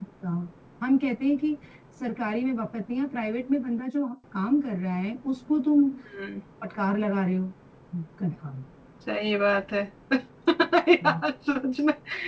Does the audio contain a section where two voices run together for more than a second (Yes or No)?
No